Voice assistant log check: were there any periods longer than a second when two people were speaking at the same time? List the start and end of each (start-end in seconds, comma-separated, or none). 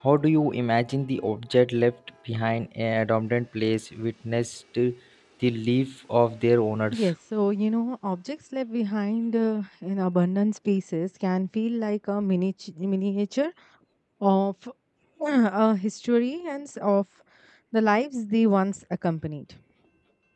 none